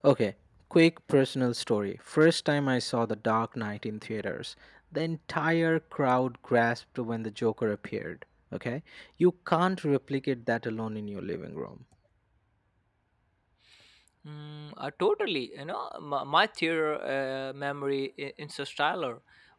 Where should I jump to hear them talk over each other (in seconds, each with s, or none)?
none